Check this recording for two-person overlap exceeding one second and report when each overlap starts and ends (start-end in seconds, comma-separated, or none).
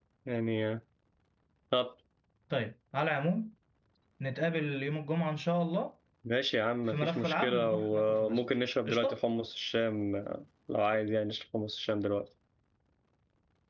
6.9-8.4